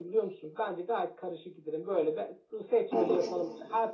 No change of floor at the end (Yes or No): Yes